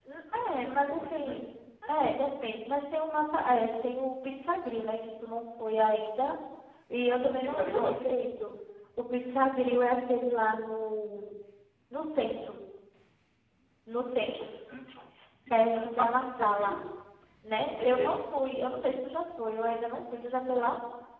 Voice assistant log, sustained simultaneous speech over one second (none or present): present